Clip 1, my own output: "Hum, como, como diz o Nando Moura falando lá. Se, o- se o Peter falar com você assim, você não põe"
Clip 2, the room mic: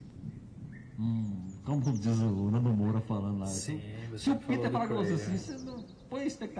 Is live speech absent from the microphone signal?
No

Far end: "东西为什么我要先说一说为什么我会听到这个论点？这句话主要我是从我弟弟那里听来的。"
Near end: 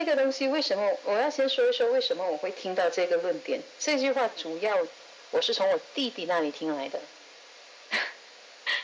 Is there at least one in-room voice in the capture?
No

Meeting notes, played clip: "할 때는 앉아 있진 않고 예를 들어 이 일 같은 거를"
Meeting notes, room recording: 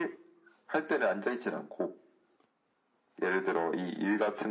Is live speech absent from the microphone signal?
Yes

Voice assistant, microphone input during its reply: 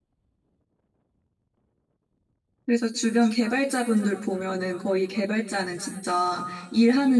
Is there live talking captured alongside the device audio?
Yes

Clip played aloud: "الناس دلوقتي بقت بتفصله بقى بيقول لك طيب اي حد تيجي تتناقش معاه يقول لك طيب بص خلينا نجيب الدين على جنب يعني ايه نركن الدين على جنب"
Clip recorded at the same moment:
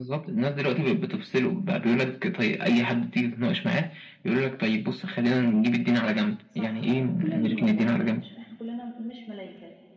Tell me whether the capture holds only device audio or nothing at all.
No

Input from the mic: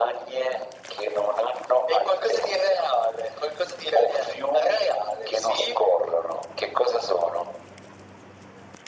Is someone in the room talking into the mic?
No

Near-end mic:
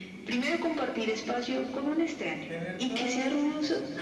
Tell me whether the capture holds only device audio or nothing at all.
No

